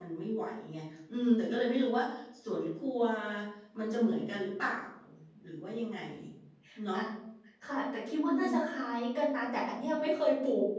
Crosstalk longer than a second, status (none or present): none